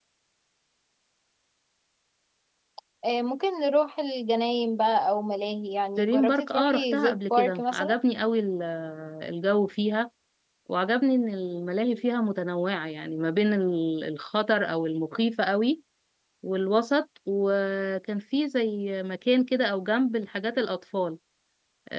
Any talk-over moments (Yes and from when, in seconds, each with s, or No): Yes, from 6.0 s